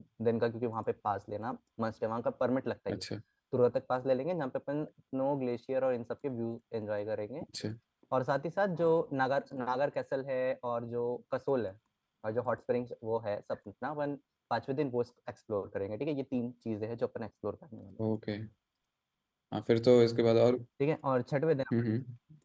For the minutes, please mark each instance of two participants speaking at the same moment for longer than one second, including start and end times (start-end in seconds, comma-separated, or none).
none